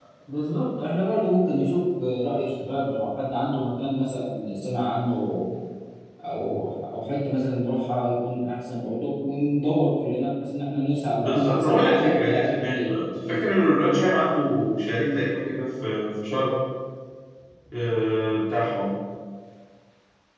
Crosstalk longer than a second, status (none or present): present